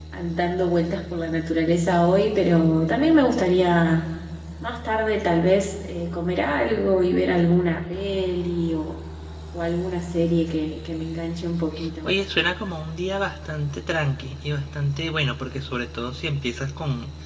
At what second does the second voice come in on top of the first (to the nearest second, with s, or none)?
none